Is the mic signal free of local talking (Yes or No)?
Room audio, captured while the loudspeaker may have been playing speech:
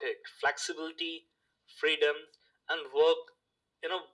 Yes